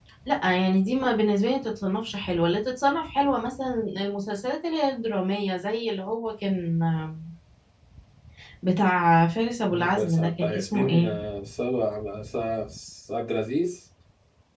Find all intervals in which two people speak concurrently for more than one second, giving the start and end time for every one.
9.7-11.1

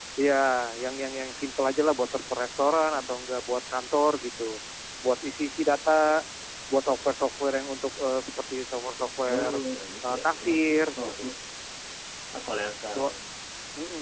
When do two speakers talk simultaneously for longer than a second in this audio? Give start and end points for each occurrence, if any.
10.1-11.3

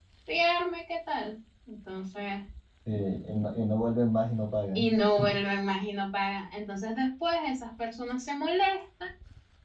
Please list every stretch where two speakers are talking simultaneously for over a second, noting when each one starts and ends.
none

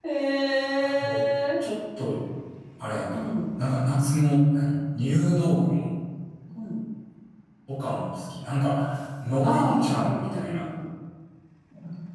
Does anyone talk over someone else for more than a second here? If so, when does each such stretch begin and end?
9.4-10.6

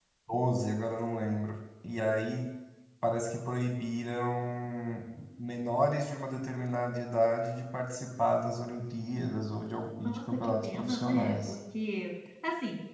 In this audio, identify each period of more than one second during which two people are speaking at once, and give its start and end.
10.0-11.5

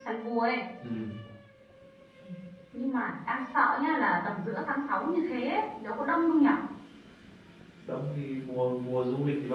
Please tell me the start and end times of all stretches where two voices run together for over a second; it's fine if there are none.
none

